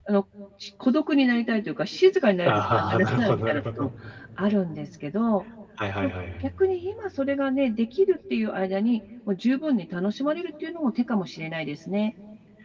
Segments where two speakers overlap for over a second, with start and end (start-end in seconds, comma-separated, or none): 2.5-3.9